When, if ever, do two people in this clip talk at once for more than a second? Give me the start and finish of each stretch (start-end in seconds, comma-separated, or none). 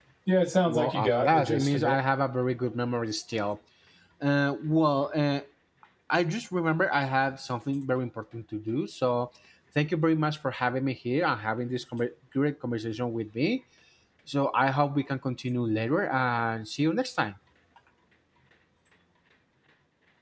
0.7-2.0